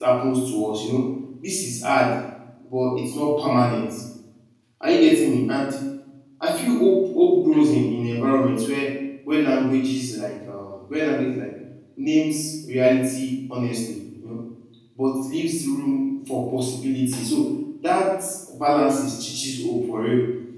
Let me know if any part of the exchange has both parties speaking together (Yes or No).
No